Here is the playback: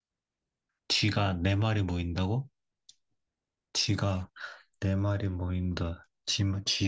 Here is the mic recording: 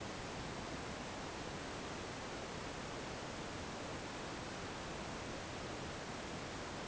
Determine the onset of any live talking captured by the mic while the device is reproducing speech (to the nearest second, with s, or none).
none